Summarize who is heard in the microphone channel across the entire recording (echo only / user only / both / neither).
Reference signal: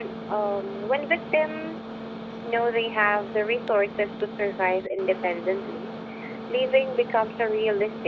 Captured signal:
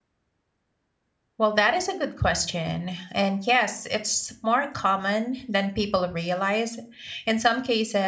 user only